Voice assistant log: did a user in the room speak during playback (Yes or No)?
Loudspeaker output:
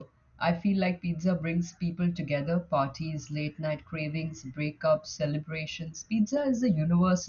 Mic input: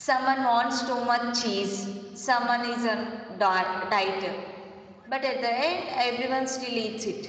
Yes